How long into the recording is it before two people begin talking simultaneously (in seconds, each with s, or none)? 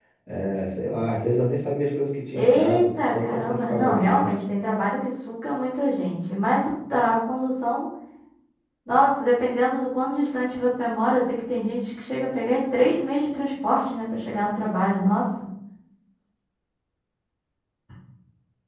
2.4 s